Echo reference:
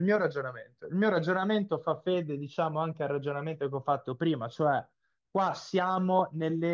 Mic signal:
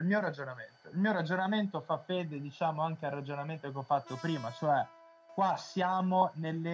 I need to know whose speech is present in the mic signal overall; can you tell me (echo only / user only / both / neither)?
echo only